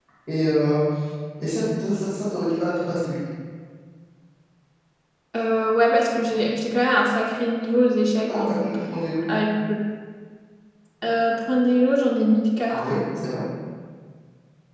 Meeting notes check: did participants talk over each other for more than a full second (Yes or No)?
No